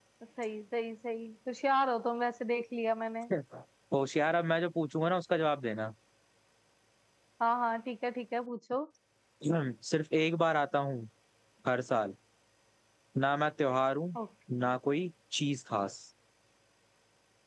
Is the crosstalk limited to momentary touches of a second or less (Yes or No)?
Yes